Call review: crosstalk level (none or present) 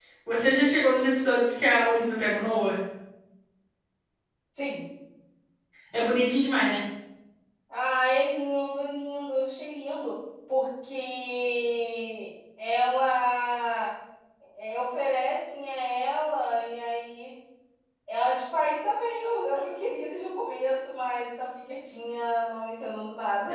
none